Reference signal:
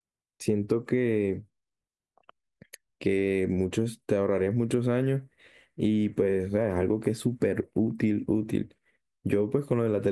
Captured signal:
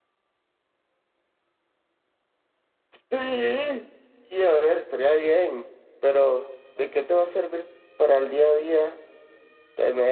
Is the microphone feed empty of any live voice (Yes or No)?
No